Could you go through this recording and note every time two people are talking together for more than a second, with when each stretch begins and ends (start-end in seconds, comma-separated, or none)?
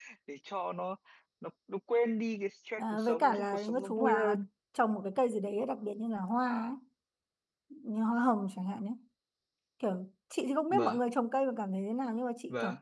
2.8-4.4